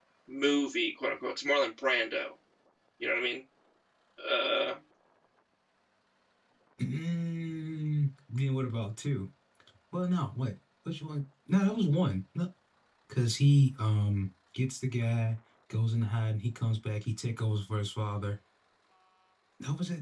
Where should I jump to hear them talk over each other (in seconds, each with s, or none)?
none